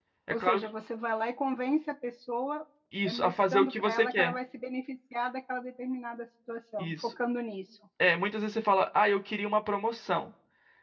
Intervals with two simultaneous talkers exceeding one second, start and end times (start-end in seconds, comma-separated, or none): 3.0-4.4